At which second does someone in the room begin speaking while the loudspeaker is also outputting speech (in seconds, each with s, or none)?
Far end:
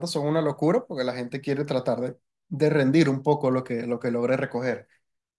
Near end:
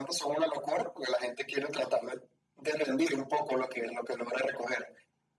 none